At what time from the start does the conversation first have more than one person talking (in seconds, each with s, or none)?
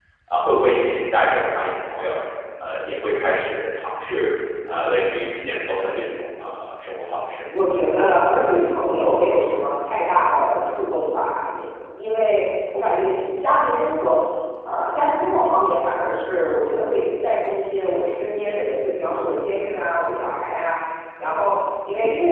none